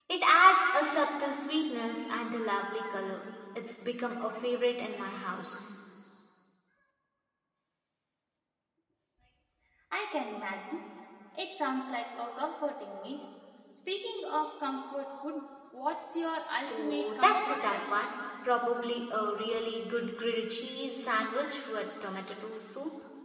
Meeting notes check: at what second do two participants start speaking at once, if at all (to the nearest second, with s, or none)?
17 s